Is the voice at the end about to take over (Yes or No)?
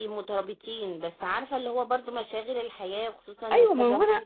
Yes